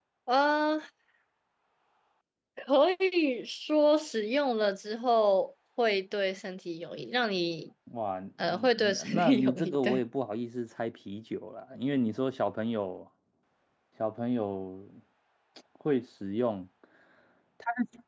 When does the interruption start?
8.4 s

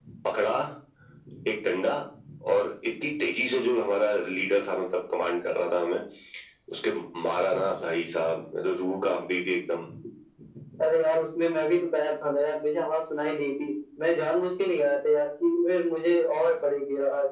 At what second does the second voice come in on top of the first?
none

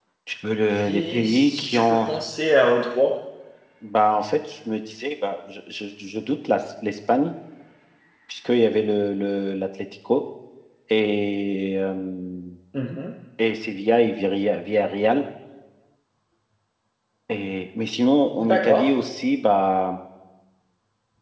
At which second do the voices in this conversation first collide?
0.7 s

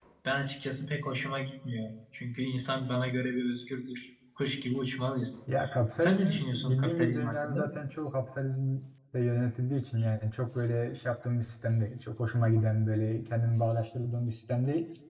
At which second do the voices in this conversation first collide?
6.0 s

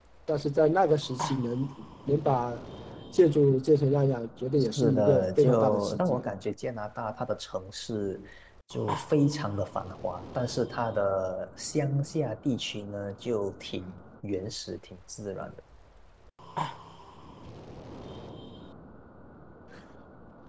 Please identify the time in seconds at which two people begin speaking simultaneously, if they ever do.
4.8 s

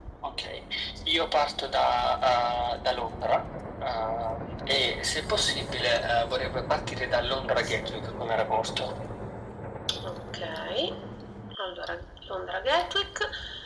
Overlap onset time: none

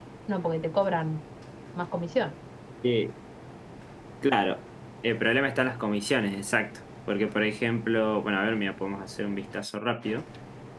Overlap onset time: none

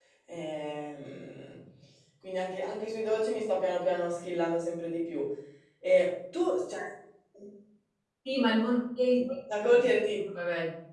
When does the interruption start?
none

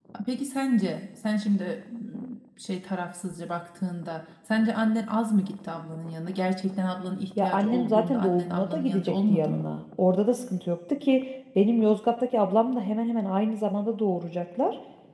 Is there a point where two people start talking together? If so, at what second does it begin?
7.4 s

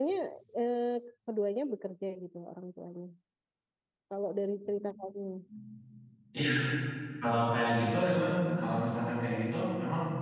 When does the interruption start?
none

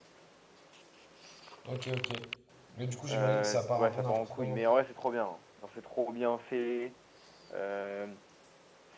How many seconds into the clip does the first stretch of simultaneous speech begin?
3.1 s

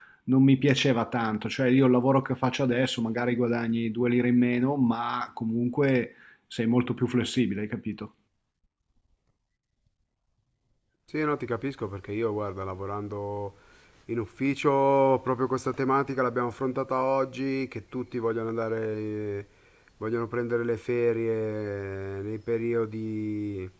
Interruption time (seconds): none

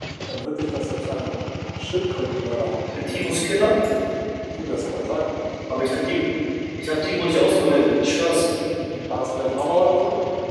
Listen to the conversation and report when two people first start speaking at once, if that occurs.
none

